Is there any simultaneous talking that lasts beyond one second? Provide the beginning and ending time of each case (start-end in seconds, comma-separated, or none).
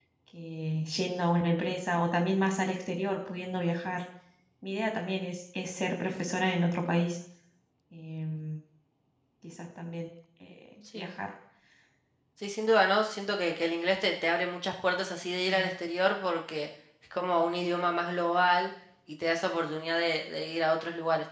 none